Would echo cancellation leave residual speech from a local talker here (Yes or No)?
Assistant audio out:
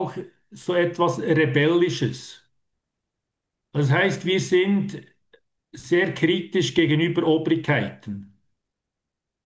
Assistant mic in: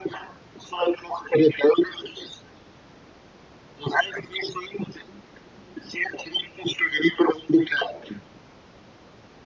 No